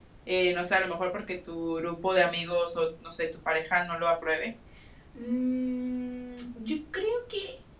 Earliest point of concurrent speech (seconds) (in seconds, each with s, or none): none